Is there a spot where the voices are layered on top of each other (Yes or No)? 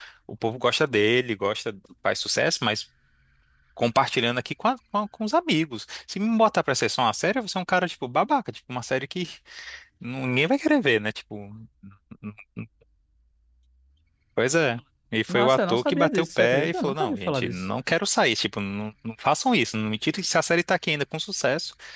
Yes